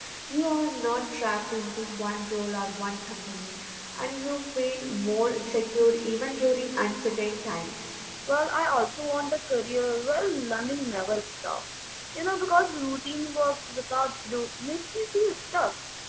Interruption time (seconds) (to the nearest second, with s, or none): none